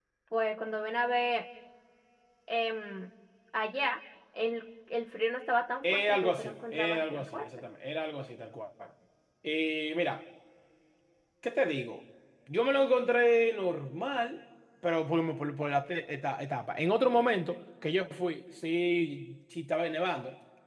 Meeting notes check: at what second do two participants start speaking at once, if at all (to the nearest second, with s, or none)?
6 s